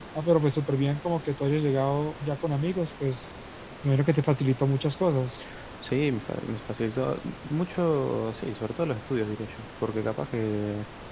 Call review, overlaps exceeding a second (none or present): none